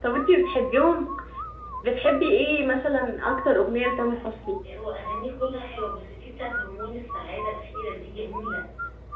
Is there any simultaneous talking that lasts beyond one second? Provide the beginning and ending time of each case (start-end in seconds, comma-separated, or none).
none